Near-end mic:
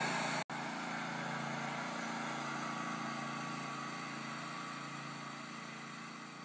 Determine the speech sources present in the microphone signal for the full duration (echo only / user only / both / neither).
neither